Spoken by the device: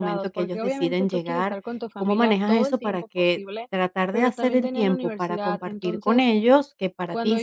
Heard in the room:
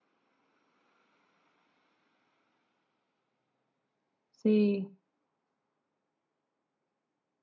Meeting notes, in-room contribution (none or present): present